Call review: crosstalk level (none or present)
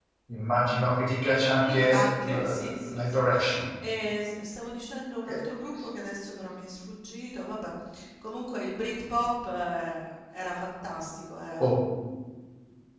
present